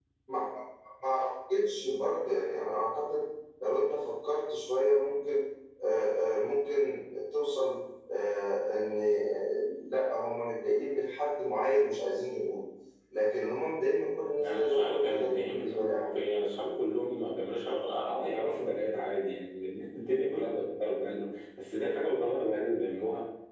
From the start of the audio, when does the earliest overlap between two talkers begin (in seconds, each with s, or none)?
14.3 s